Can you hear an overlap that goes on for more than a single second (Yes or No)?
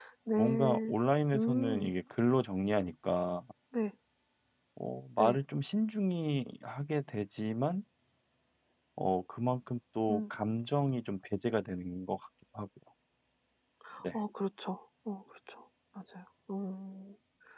No